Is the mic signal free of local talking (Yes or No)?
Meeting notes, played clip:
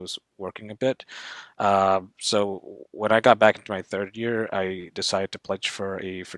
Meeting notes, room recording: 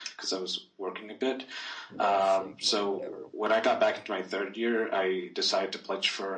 No